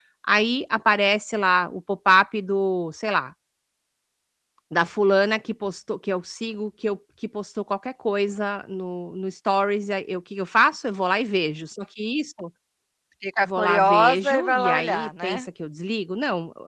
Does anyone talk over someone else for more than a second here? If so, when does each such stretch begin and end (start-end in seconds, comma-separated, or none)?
13.4-15.5